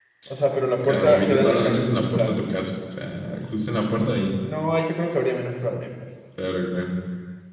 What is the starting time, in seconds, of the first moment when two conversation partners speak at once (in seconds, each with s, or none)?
0.8 s